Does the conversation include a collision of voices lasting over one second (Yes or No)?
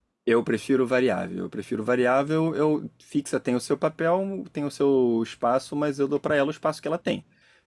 No